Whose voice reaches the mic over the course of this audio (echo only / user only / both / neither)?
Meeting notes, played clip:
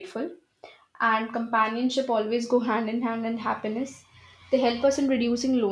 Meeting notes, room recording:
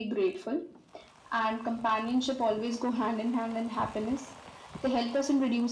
echo only